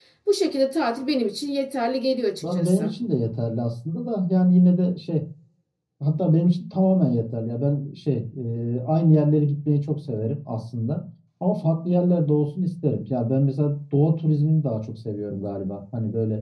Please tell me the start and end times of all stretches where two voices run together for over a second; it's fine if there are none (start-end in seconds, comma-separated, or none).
none